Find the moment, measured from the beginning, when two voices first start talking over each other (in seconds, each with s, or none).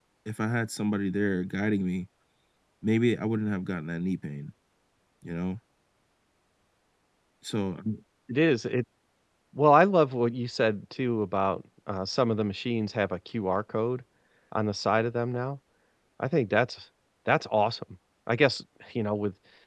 none